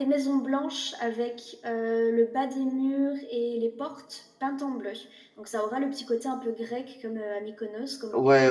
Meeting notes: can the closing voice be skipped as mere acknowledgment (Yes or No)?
No